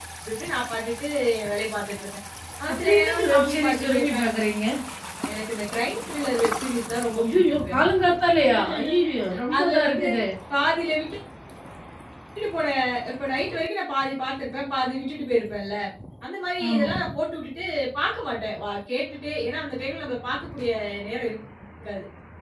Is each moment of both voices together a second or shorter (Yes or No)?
No